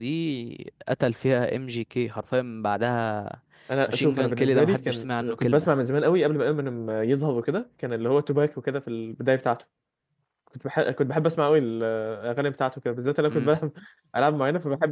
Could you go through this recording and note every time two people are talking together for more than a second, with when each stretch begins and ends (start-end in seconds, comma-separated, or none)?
3.9-5.7